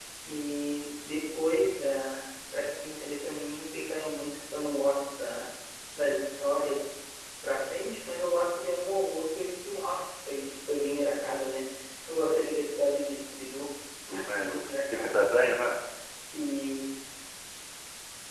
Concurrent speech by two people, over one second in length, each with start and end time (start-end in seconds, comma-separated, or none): 14.1-15.4